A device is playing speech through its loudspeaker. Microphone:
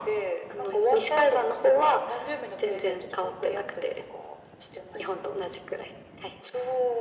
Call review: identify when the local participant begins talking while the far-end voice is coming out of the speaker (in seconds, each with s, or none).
none